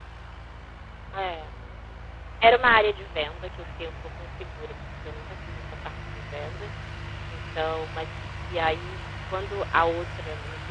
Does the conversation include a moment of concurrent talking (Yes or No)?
No